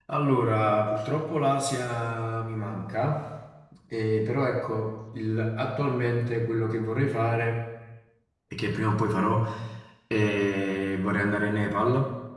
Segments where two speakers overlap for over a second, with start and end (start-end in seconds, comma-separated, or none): none